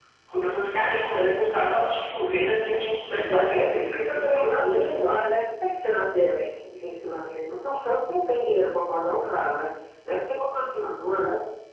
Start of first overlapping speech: 3.2 s

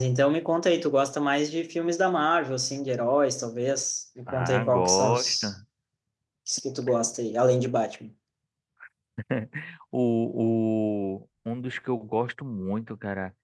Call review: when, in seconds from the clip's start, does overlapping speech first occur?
4.3 s

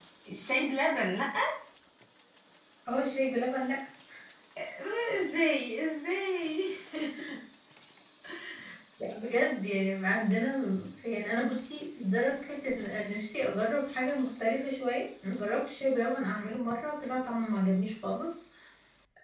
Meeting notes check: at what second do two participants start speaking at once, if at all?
none

